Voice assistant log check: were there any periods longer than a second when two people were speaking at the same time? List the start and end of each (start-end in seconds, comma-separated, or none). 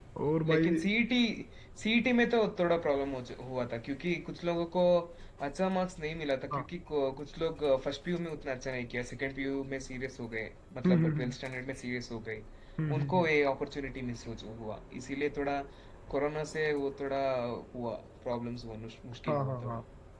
none